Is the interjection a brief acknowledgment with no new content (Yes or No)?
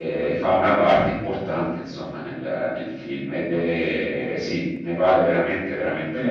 No